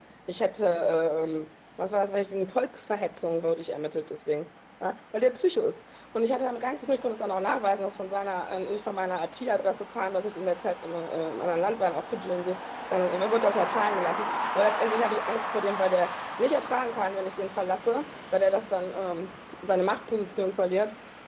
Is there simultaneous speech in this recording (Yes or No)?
No